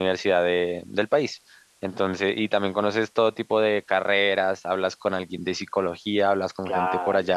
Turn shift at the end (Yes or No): No